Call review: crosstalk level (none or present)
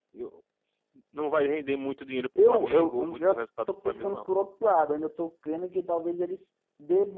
present